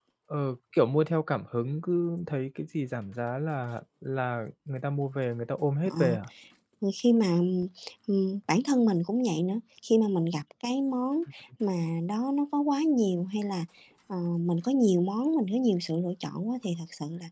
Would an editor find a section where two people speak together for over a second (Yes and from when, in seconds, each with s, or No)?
No